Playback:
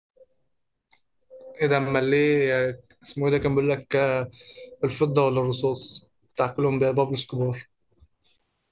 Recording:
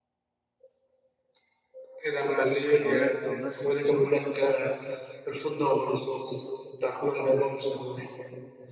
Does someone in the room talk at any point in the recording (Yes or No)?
Yes